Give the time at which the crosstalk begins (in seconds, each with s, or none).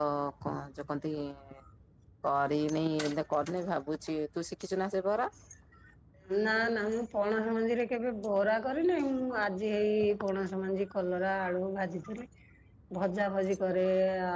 none